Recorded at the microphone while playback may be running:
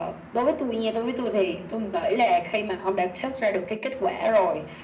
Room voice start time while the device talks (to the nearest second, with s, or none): none